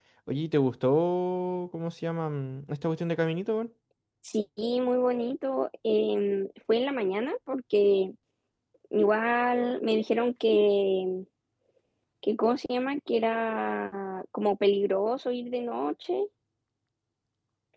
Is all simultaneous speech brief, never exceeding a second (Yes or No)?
Yes